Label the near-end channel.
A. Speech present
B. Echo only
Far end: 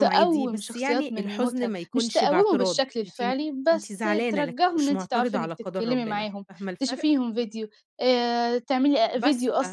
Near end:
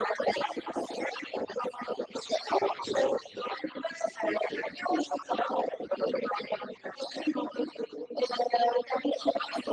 B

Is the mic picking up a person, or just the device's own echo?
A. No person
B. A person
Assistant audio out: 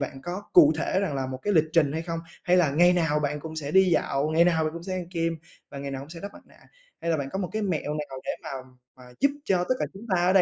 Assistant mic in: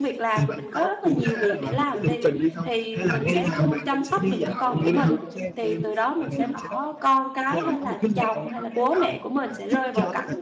B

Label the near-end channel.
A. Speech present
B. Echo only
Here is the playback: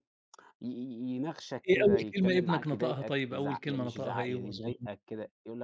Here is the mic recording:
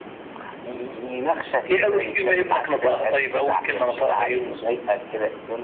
B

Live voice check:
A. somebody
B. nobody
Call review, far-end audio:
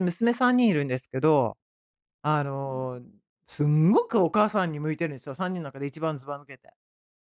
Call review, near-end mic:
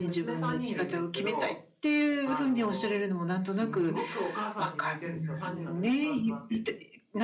A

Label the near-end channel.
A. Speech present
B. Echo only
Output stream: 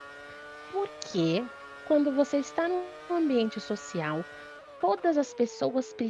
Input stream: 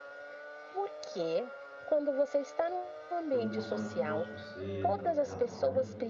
A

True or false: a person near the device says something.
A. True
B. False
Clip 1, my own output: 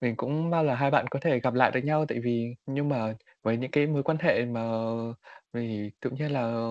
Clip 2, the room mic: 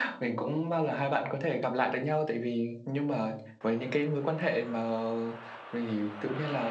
B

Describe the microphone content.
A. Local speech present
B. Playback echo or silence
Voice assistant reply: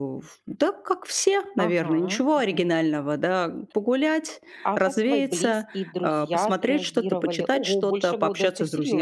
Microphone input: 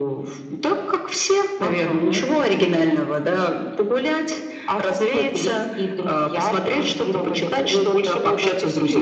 A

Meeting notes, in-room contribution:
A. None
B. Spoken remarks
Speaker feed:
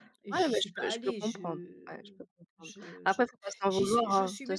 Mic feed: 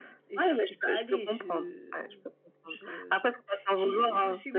A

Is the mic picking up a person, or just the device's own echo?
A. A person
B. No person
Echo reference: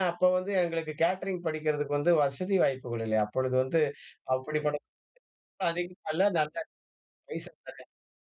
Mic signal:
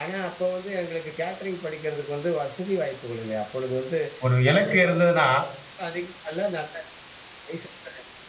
A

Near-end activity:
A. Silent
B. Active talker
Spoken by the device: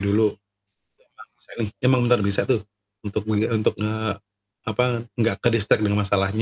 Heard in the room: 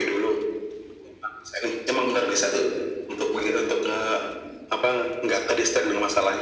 A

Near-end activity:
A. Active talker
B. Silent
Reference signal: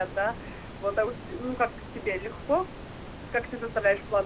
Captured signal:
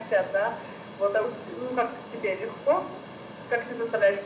B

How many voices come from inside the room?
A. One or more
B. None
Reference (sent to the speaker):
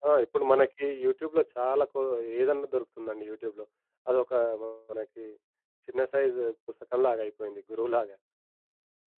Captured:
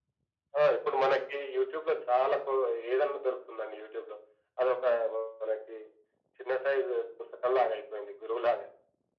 B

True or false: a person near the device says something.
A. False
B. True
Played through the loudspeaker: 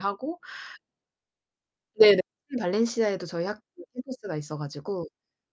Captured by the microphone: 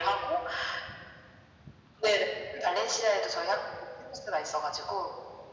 A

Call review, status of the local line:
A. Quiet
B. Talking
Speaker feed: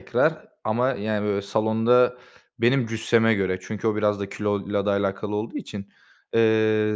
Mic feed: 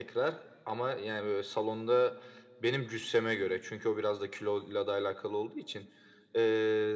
A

